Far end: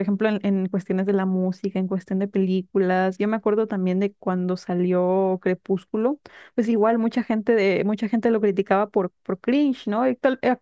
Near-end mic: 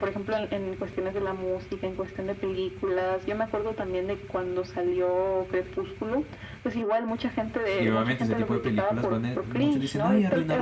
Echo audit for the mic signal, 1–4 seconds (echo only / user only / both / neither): echo only